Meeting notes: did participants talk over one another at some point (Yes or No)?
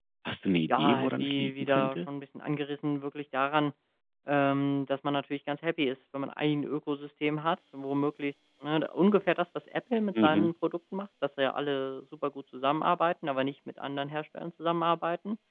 Yes